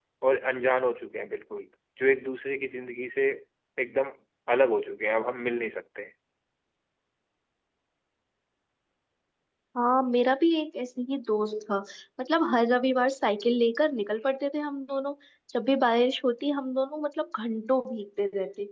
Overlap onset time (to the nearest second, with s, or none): none